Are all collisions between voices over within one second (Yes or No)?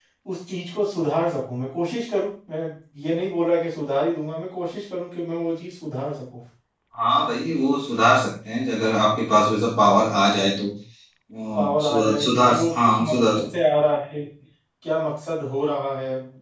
No